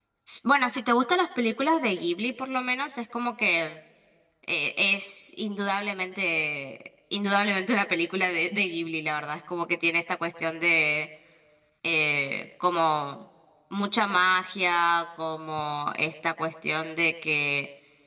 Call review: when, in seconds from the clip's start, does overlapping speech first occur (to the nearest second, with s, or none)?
none